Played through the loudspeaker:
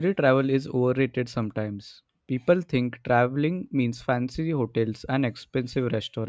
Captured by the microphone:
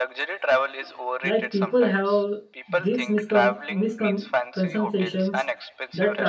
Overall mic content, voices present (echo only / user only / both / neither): both